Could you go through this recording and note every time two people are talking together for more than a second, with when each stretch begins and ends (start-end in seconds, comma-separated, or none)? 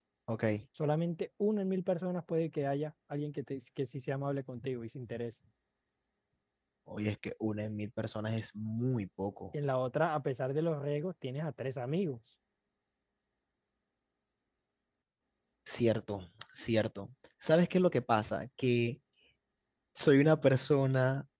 none